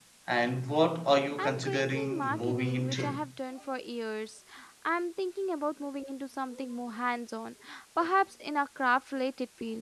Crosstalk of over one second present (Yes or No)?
Yes